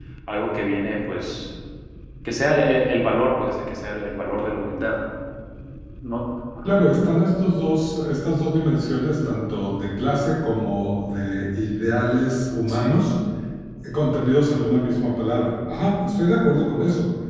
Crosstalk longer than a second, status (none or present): none